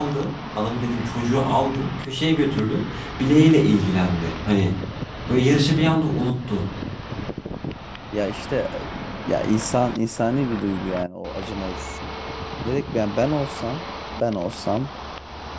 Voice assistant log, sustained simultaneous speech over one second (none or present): none